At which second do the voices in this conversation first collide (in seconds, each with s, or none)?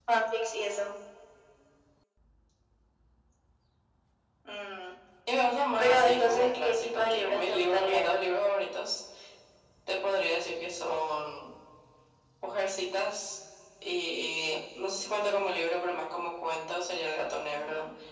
5.8 s